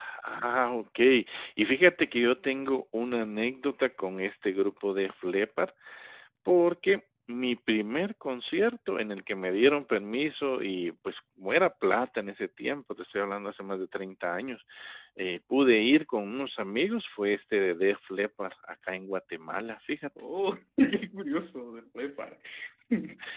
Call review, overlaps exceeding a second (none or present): none